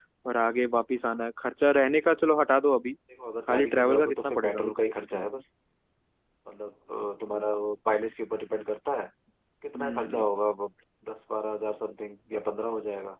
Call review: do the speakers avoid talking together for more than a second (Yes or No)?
No